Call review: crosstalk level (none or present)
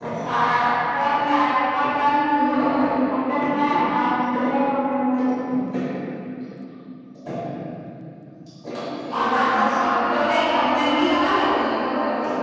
present